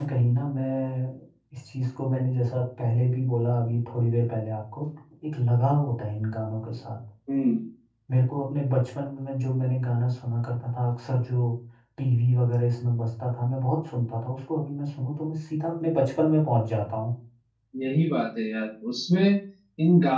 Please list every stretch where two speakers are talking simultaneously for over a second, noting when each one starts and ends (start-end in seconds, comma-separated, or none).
none